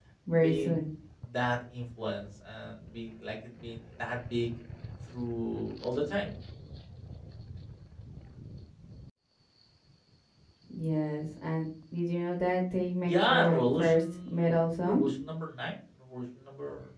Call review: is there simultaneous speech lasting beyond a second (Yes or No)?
Yes